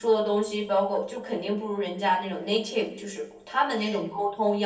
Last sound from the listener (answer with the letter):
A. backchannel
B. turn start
A